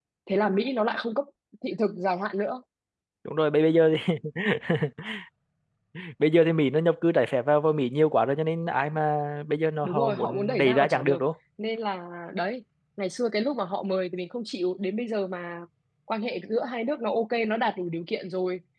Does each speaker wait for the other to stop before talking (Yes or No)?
No